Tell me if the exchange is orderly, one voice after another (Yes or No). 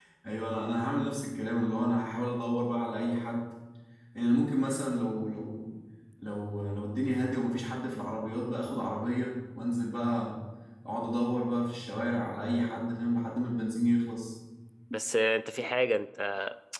Yes